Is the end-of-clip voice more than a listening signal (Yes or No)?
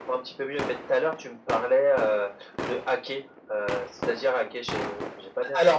Yes